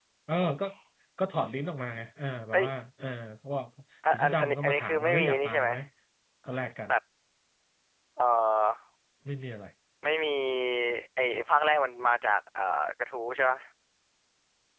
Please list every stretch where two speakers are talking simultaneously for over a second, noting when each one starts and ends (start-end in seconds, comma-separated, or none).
4.1-5.7